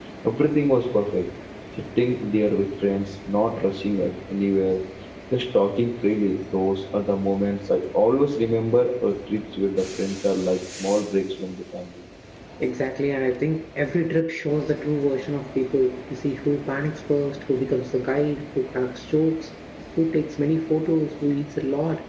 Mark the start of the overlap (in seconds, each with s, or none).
none